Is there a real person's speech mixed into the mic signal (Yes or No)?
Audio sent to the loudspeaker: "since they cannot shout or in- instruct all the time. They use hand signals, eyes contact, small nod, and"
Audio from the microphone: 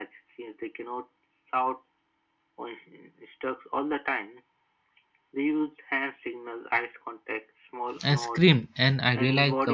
Yes